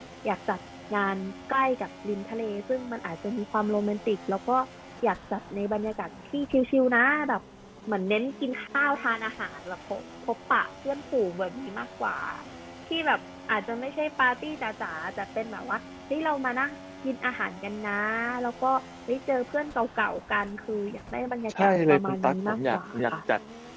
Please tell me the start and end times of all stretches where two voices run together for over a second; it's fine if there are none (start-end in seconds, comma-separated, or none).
21.6-23.1